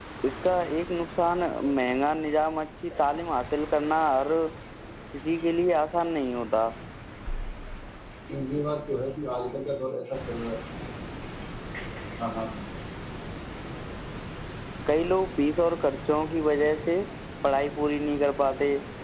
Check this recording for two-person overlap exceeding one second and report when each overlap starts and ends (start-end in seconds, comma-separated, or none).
none